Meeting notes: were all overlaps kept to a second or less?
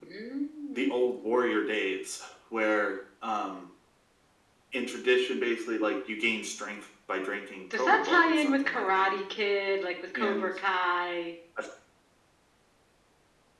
No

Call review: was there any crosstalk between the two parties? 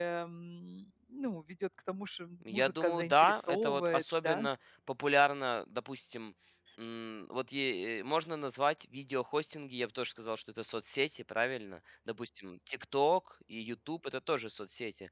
Yes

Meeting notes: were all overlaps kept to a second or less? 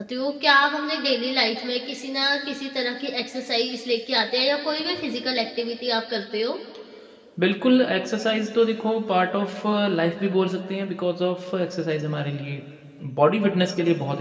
Yes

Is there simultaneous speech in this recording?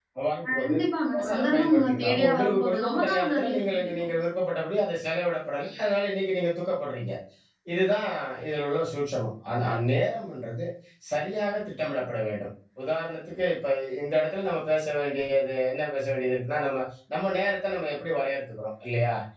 Yes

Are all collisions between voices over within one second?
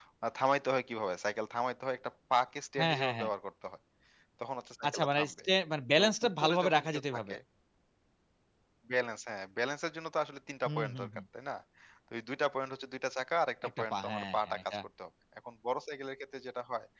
No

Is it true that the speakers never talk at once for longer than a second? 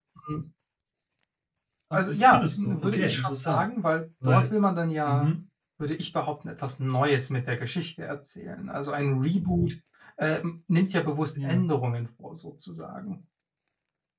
No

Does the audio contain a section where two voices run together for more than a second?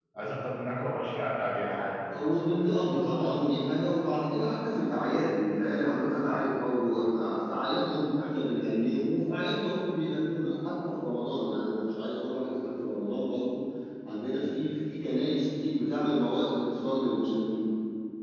No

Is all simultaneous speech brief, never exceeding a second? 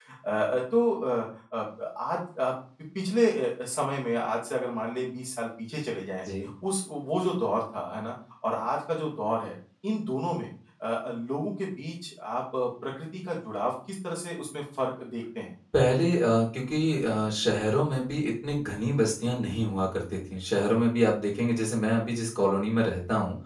Yes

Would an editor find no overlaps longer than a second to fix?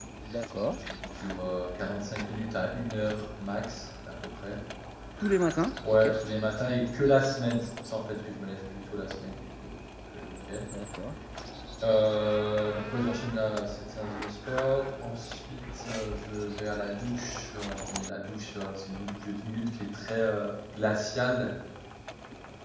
Yes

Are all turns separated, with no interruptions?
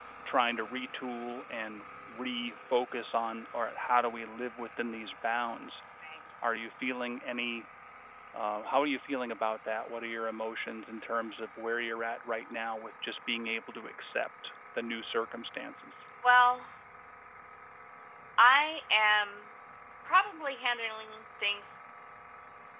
Yes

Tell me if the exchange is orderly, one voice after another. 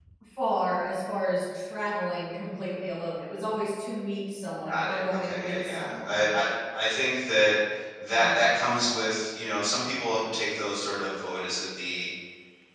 No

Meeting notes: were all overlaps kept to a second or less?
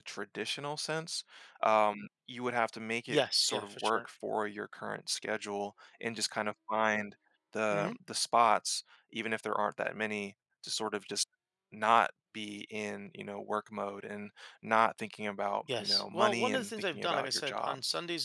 No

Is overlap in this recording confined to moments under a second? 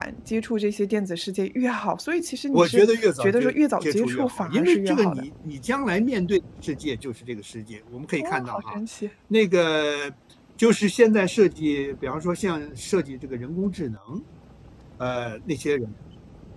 No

